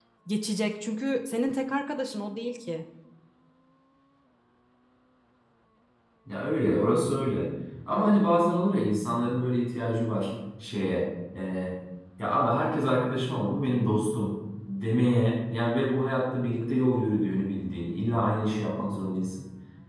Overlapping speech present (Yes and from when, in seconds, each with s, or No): No